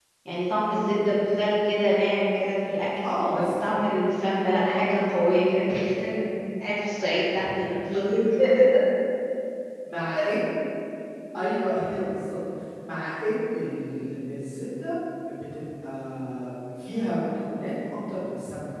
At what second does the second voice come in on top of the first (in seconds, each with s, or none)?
none